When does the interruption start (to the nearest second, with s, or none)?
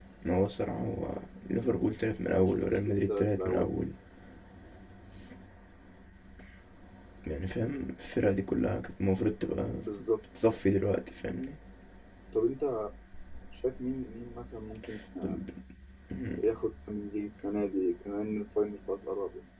2 s